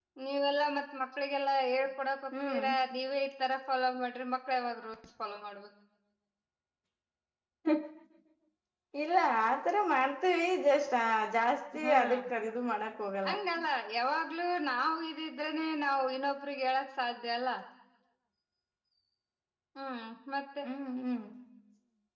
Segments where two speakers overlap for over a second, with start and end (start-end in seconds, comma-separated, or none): none